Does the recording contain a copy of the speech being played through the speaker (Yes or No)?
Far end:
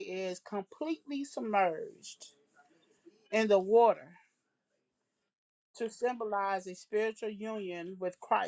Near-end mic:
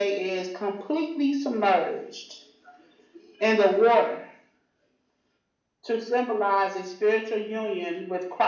Yes